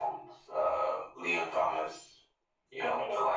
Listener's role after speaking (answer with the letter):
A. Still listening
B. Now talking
A